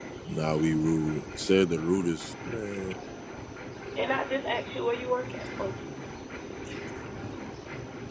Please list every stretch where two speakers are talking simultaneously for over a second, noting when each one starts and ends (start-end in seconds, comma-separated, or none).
none